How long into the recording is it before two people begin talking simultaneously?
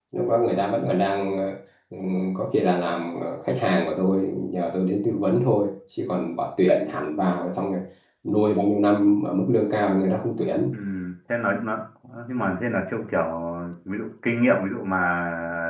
none

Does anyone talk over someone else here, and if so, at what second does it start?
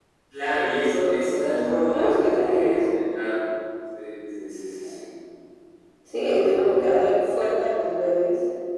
1.4 s

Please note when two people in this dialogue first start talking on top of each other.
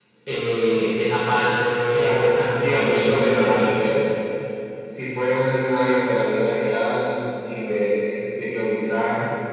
1.9 s

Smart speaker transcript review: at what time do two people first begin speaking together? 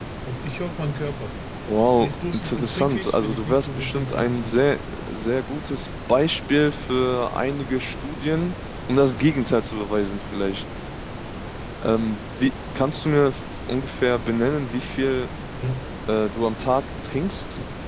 2.0 s

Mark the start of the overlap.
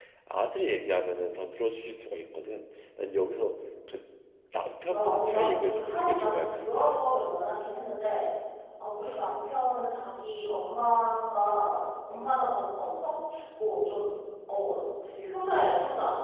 4.9 s

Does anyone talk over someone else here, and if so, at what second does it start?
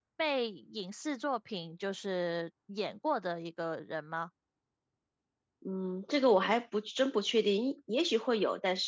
none

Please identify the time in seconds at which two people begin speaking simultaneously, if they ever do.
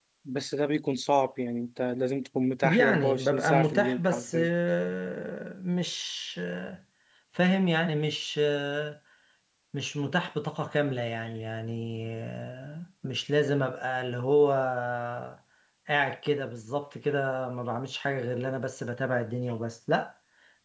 2.6 s

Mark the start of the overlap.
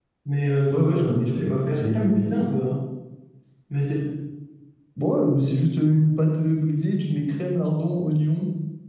0.7 s

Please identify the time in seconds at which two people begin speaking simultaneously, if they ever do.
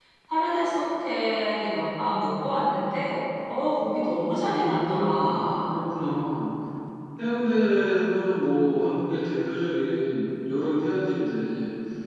4.5 s

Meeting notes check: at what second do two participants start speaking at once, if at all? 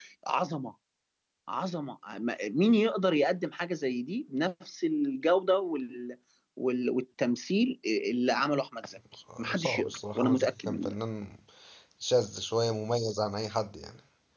9.3 s

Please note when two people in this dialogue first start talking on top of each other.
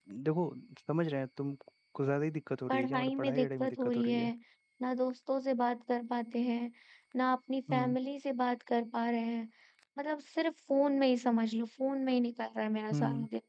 2.7 s

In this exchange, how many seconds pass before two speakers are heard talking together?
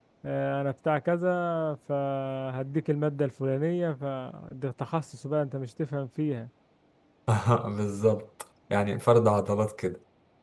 none

